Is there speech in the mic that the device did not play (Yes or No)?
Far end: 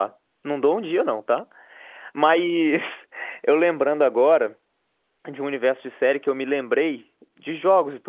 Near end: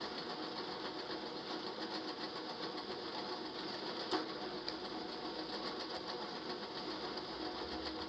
No